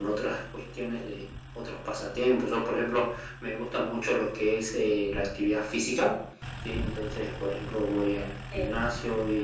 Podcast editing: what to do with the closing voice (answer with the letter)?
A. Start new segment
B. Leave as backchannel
B